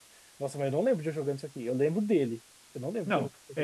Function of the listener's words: taking over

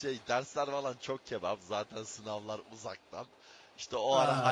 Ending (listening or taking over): listening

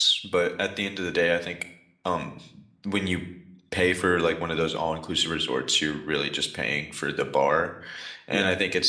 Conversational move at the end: listening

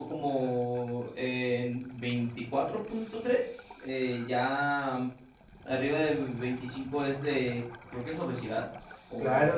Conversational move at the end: taking over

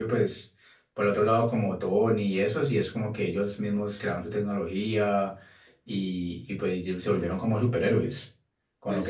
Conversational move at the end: taking over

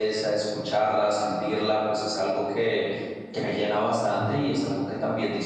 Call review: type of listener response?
listening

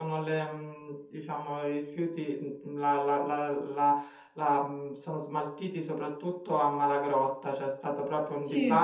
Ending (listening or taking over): listening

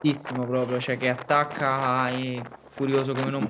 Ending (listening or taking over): taking over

